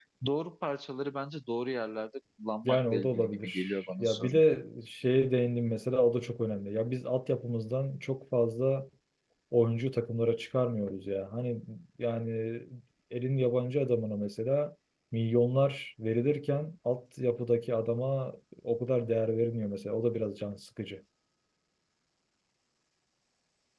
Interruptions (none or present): present